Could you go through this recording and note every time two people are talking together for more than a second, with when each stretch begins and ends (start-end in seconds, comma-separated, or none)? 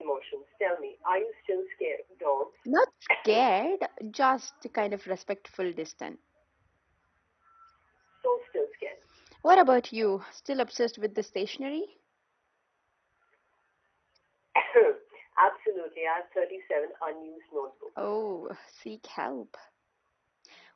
none